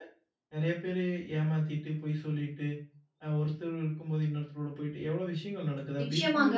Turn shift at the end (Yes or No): Yes